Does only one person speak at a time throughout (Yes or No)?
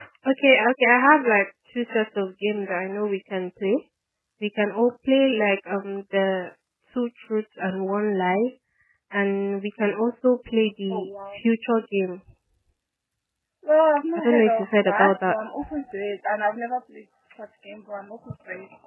No